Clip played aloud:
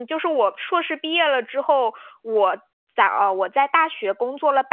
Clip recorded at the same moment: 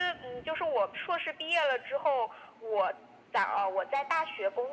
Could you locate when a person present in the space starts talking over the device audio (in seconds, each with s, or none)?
none